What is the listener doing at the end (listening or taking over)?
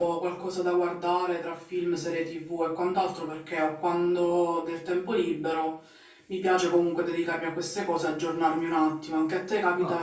taking over